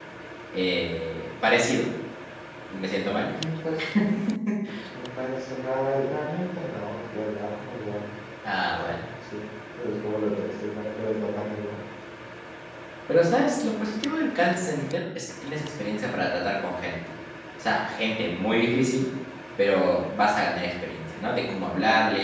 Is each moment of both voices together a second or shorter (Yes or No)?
Yes